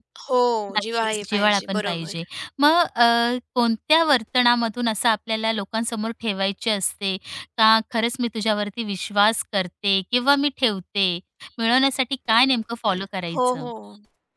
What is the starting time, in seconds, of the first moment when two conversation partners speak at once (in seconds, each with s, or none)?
0.8 s